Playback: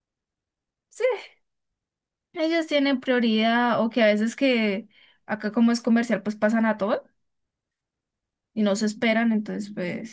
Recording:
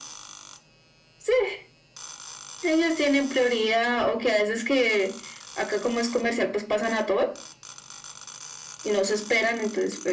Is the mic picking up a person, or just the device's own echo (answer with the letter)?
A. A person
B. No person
B